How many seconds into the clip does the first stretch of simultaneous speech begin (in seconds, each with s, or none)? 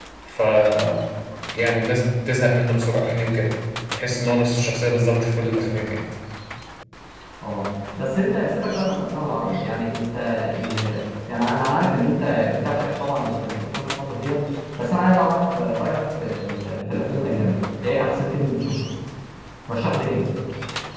none